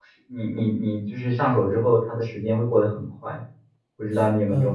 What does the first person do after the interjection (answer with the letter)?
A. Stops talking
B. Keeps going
A